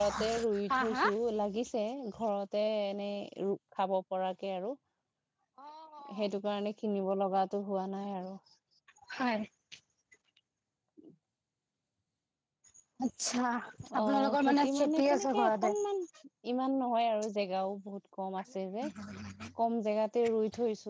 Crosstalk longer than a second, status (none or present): present